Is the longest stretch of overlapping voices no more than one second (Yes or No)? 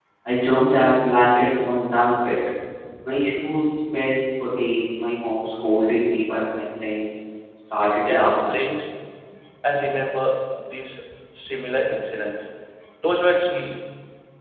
Yes